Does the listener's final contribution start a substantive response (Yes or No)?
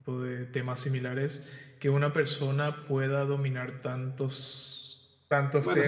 No